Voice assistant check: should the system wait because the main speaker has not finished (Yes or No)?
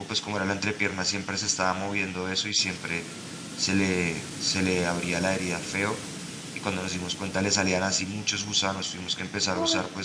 Yes